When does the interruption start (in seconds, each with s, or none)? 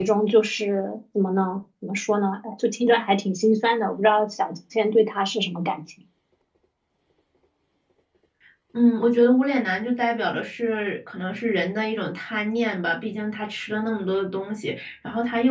none